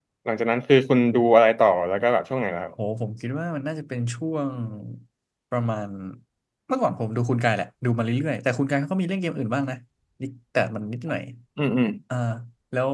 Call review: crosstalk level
none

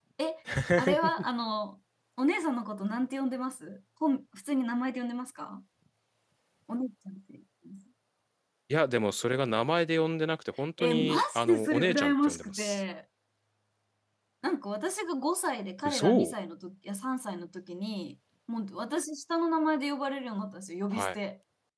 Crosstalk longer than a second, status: present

